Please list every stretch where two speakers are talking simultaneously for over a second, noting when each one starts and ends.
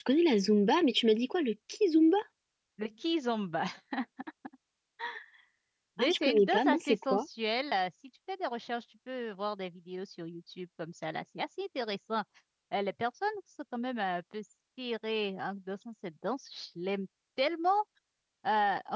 6.0-7.3

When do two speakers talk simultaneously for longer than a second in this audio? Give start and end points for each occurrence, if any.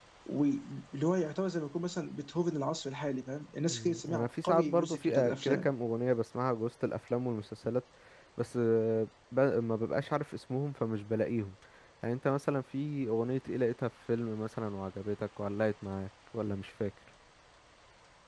3.7-5.7

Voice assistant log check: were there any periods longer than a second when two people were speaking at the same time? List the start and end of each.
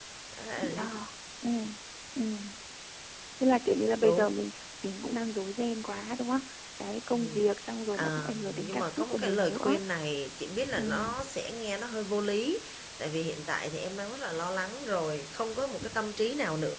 7.9-9.8

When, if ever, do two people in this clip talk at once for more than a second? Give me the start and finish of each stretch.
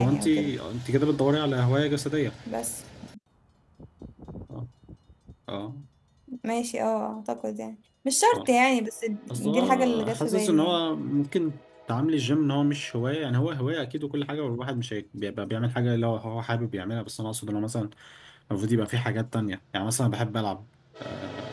9.3-10.8

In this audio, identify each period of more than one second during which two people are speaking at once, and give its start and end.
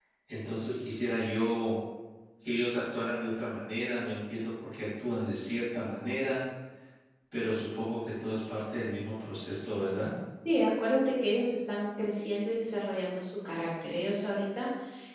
none

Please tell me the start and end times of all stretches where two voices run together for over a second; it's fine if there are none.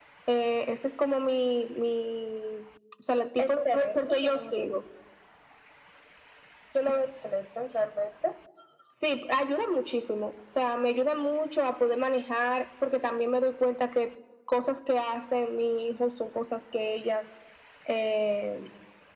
3.4-4.7

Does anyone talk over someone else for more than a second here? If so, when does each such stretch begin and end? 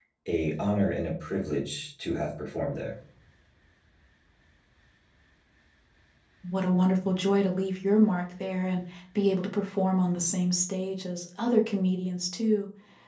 none

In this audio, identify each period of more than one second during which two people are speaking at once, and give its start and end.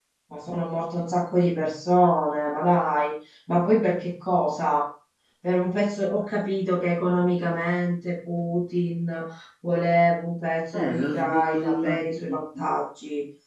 10.7-12.7

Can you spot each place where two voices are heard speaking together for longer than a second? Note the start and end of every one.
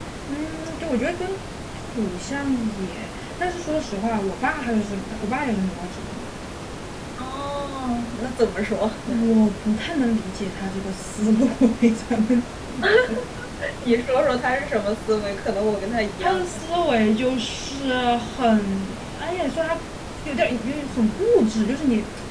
none

